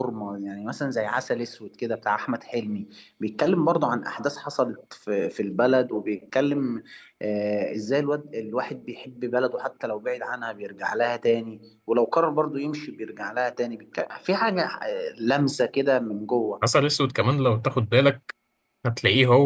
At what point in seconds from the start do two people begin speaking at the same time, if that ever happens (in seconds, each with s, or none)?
none